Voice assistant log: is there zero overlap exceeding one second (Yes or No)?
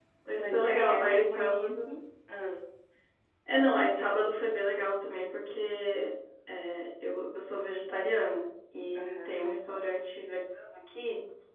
No